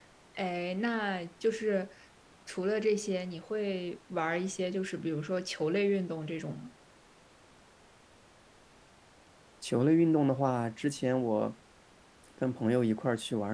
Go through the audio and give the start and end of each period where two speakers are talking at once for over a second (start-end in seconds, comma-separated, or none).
none